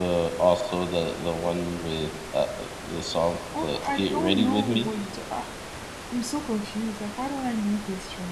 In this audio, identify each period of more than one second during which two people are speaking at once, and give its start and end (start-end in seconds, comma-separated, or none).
3.6-4.9